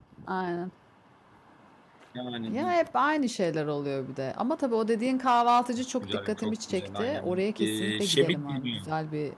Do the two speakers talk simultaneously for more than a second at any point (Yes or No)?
Yes